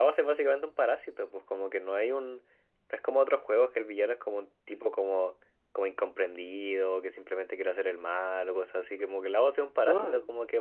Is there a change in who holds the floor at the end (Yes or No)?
No